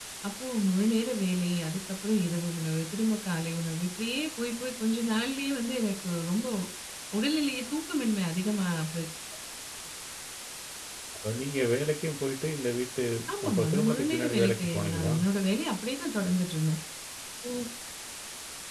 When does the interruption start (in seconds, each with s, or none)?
13.5 s